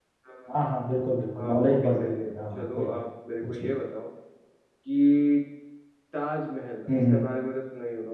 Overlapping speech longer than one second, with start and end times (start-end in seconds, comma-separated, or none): 1.4-3.0